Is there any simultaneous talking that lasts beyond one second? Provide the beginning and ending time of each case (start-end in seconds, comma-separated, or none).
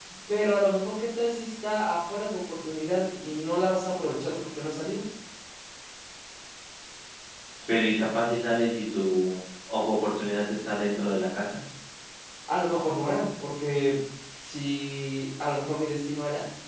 none